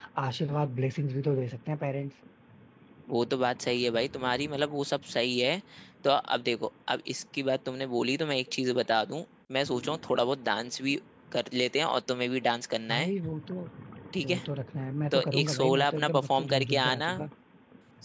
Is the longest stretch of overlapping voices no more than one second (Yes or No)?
No